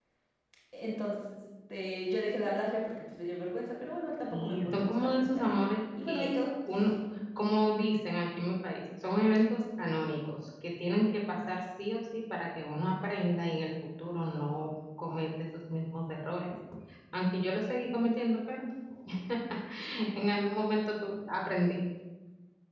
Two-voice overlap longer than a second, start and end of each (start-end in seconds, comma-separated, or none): 4.3-5.5